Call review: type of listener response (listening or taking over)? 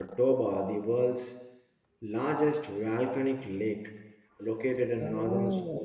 listening